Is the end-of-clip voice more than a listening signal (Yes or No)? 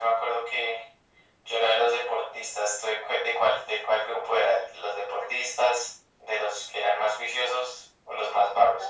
Yes